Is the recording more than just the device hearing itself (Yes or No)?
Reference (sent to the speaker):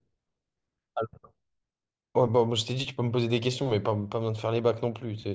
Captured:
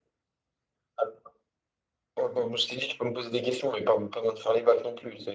No